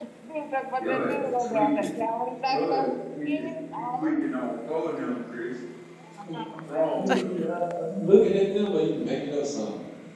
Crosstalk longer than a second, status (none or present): present